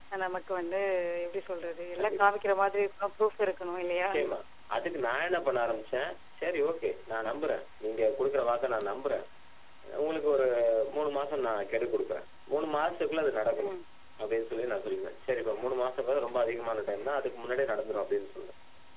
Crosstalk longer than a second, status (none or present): none